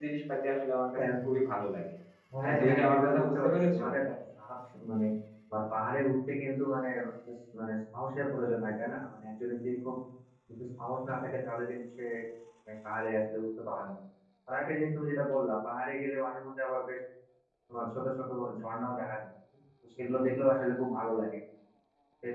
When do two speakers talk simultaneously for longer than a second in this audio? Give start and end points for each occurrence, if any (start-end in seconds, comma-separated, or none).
2.5-3.8